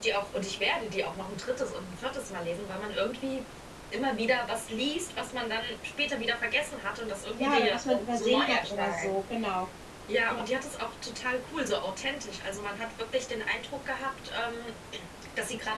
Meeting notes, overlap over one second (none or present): present